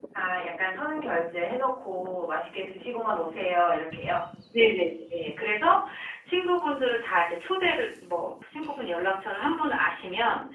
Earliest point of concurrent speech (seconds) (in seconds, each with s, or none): none